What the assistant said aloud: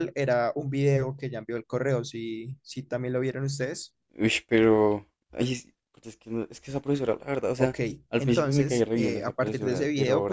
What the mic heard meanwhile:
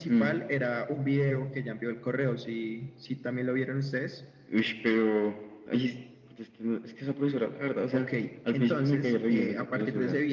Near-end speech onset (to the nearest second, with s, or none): none